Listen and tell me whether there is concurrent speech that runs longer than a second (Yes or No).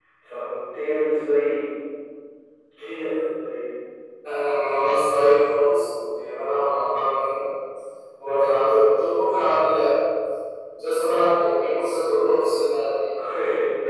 No